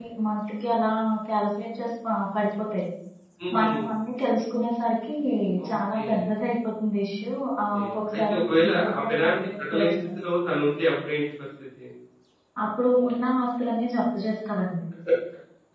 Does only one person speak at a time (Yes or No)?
No